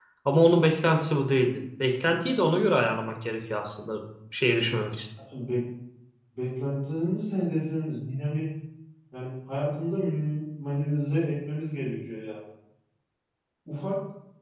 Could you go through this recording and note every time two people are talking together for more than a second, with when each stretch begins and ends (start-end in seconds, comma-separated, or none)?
none